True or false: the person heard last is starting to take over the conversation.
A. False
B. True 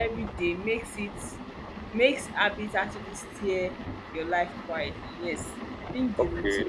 B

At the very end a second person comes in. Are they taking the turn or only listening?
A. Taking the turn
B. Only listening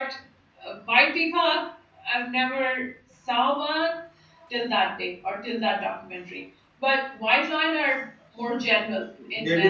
A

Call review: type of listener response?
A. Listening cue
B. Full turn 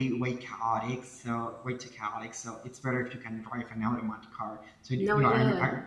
A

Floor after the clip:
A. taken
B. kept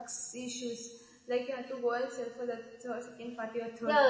A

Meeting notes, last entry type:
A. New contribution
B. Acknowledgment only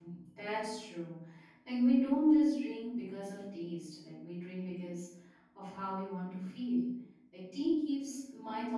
B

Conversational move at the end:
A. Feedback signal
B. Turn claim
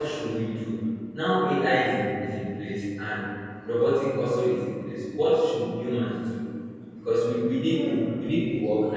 A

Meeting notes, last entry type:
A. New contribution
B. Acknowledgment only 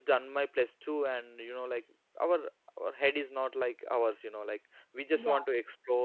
B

